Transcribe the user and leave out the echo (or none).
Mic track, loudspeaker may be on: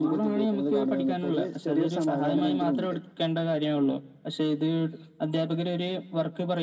none